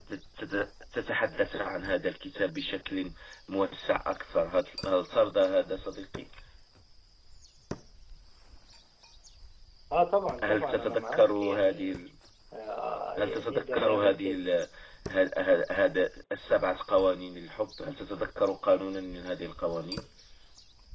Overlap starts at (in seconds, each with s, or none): 10.4 s